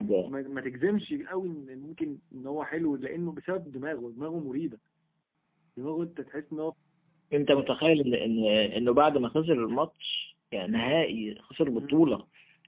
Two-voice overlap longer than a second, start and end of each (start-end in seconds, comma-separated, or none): none